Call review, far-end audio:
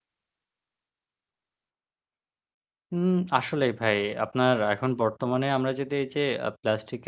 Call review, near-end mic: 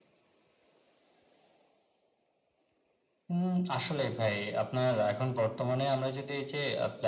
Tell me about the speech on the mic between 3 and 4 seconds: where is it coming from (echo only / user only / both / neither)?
echo only